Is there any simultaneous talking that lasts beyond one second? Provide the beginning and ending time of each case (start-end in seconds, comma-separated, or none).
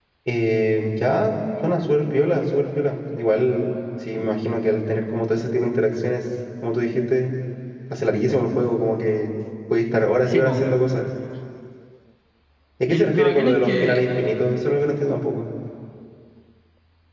12.9-14.1